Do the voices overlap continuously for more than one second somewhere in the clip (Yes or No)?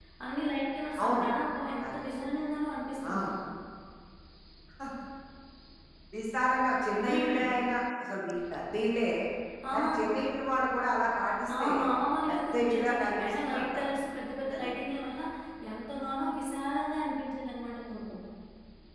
Yes